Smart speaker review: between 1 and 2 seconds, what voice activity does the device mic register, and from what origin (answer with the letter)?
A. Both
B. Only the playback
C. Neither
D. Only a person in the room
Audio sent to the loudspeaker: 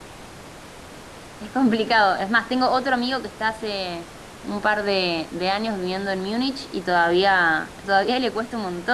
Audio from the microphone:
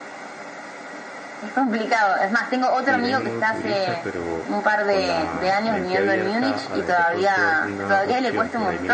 B